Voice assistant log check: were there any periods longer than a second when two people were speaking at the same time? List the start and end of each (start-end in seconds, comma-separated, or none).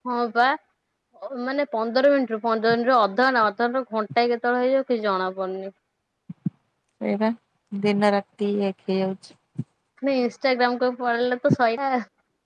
none